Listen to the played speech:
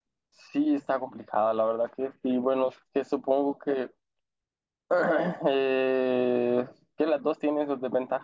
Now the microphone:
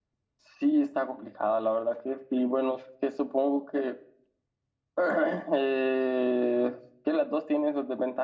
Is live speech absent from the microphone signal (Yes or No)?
Yes